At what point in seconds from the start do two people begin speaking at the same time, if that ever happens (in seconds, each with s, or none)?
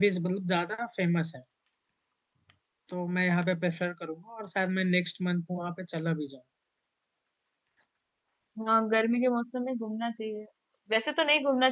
none